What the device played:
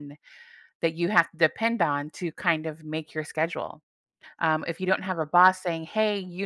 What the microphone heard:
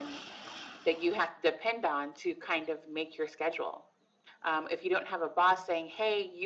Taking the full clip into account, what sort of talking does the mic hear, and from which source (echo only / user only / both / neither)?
echo only